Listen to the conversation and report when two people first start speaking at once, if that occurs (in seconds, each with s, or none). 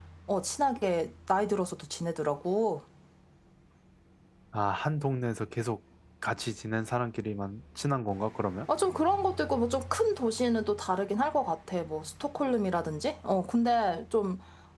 none